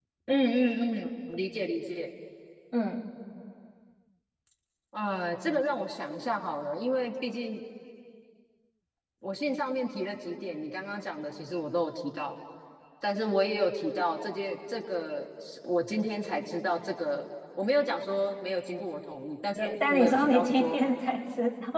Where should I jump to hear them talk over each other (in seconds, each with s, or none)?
19.6 s